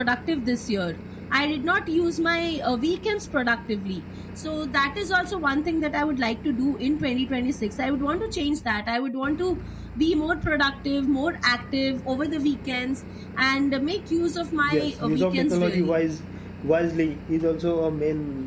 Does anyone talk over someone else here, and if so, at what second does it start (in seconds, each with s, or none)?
14.7 s